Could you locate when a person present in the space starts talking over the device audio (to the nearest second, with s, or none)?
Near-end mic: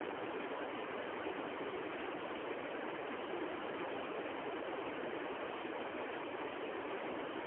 none